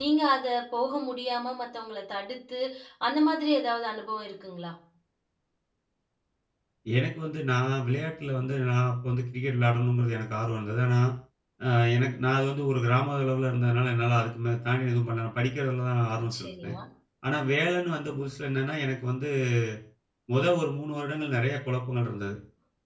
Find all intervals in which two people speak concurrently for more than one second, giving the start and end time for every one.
none

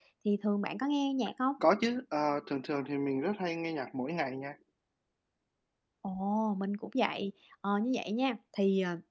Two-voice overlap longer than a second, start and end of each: none

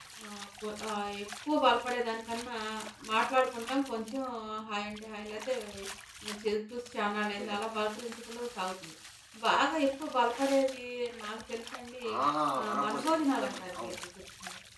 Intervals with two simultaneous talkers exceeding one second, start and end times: 12.7-13.9

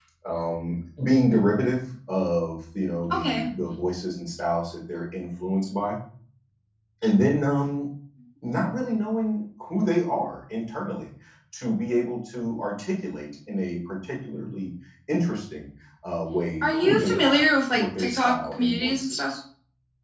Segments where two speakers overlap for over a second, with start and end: 16.6-19.3

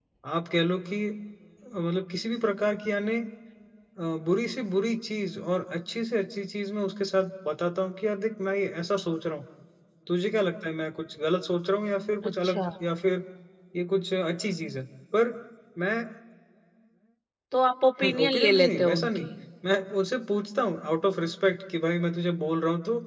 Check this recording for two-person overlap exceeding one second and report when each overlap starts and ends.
18.0-19.2

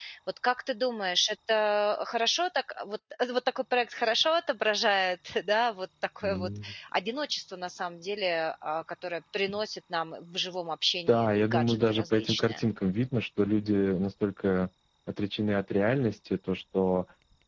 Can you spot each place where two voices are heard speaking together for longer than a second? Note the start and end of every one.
11.1-12.6

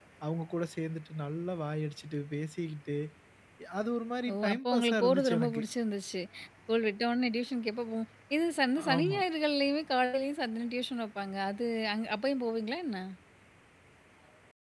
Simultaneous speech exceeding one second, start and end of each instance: 4.3-5.6

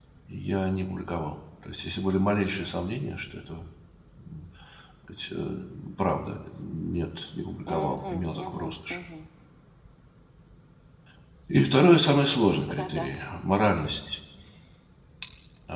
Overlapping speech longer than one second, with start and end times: 7.7-9.0

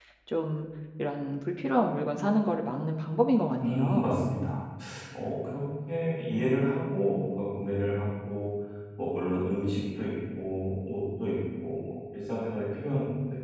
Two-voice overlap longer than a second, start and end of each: none

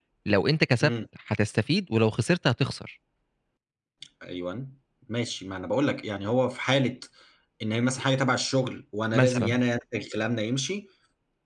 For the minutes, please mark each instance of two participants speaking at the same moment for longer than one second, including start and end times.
none

